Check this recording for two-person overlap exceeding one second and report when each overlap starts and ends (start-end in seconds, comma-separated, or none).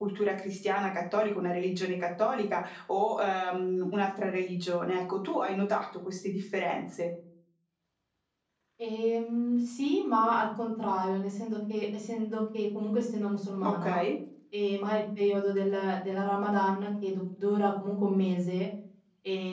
none